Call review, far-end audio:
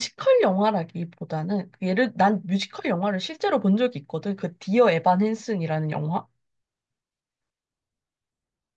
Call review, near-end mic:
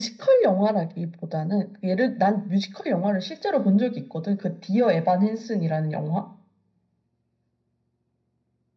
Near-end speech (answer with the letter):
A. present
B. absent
B